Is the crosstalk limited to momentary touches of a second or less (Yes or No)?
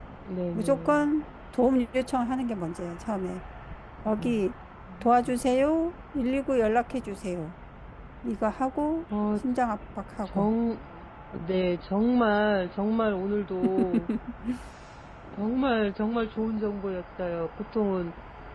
Yes